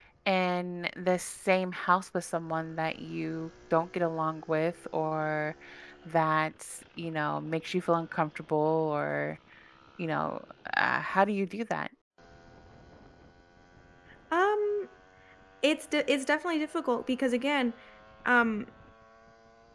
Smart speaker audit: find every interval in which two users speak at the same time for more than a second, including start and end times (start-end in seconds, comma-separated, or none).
none